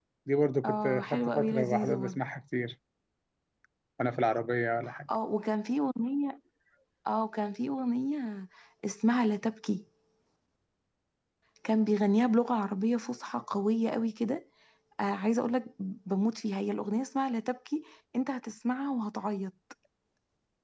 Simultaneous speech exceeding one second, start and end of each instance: 0.6-2.2

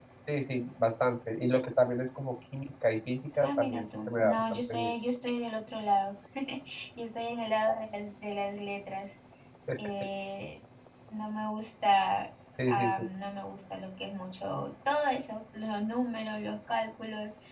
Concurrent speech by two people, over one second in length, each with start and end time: 3.4-4.9

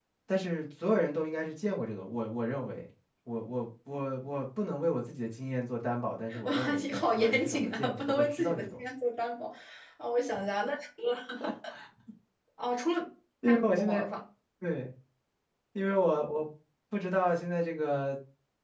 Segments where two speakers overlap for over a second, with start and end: 6.4-8.8

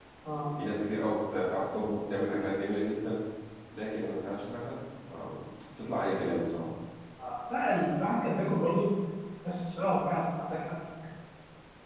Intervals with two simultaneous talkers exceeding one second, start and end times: none

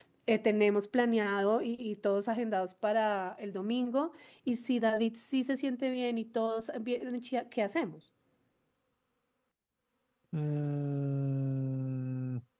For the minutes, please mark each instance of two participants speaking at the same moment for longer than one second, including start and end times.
none

